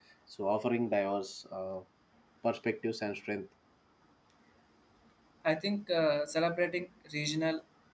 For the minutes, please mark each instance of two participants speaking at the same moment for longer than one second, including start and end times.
none

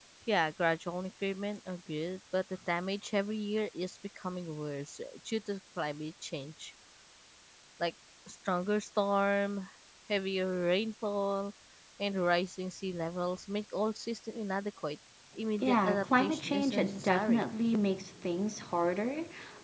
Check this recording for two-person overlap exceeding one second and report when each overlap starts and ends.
15.6-17.4

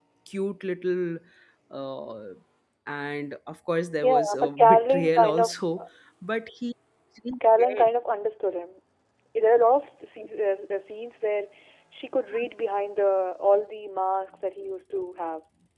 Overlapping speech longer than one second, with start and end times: 4.0-5.8

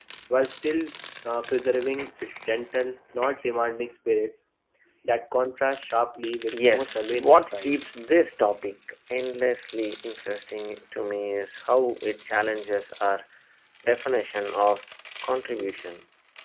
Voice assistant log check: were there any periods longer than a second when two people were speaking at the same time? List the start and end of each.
6.5-7.8

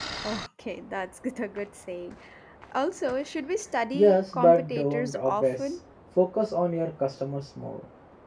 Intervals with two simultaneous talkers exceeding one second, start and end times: 3.9-5.8

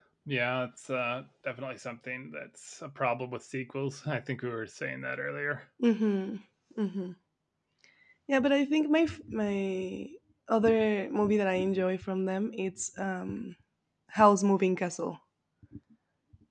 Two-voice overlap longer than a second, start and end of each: none

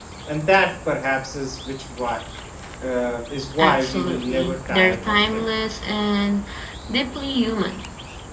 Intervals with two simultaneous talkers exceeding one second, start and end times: 3.6-5.4

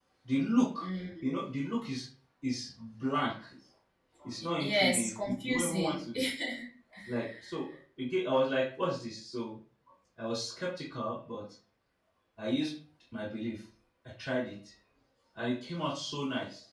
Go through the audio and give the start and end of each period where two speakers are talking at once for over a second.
4.4-5.9

